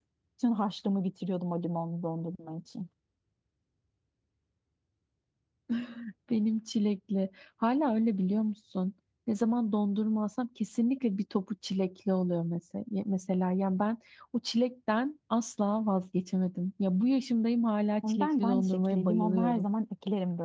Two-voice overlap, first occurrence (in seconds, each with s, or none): 18.0 s